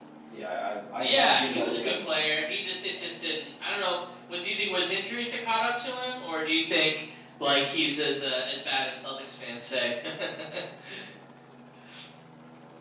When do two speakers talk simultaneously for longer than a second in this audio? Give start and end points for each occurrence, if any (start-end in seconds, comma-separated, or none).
1.0-2.2